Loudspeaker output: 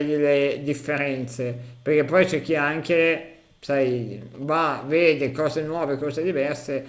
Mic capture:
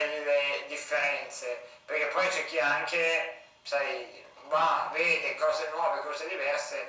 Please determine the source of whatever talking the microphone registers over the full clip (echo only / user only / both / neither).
echo only